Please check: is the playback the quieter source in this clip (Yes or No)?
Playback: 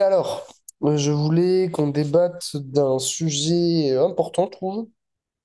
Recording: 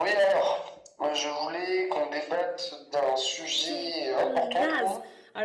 No